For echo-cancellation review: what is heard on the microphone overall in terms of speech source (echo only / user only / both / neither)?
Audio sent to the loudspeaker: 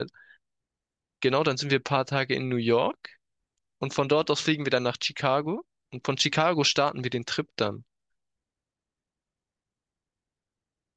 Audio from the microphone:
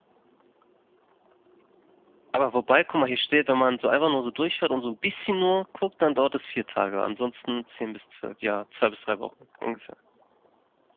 user only